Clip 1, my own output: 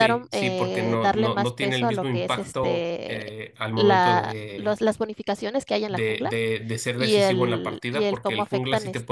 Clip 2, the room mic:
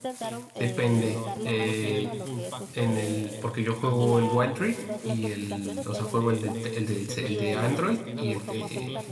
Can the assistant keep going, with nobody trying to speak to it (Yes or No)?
No